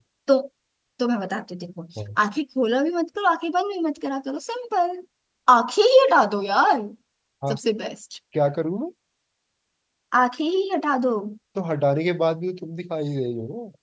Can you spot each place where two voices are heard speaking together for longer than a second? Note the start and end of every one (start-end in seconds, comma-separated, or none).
none